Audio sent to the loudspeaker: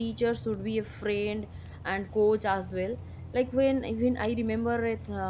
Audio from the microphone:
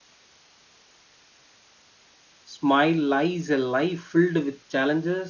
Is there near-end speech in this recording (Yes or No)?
Yes